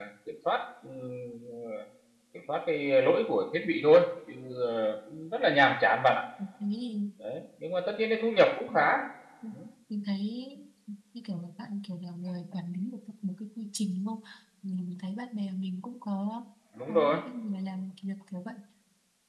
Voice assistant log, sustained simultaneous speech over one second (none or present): none